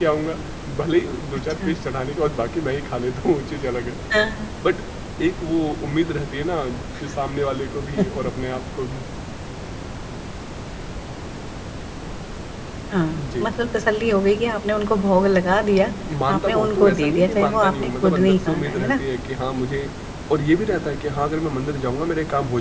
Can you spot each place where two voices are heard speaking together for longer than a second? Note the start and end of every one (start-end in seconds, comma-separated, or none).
16.3-19.0